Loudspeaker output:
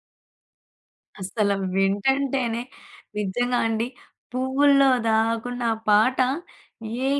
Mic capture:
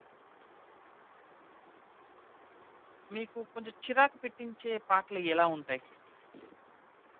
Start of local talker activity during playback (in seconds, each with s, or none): 3.2 s